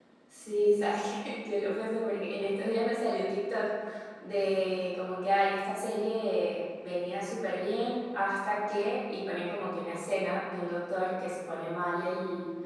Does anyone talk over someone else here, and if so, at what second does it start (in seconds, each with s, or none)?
none